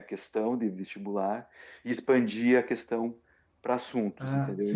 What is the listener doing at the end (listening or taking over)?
taking over